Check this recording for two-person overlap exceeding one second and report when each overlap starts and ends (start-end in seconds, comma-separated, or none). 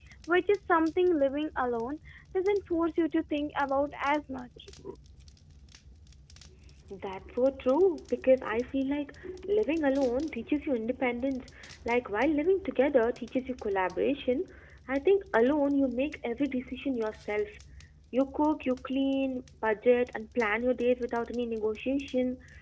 none